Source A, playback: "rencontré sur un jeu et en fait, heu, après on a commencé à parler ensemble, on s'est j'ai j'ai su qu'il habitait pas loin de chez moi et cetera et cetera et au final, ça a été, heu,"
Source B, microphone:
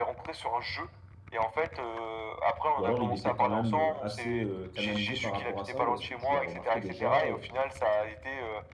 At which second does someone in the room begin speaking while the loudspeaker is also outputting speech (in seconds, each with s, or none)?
2.8 s